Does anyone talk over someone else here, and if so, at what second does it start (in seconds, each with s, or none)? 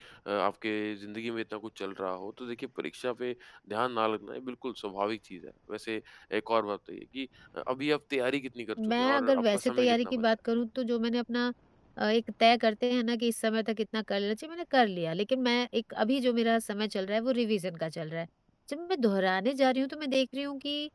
8.8 s